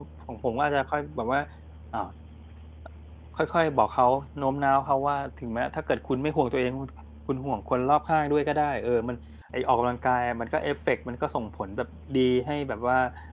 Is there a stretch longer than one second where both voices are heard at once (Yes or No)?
No